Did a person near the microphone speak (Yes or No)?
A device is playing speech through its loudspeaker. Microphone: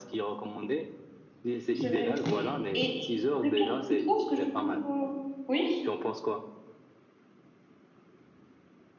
Yes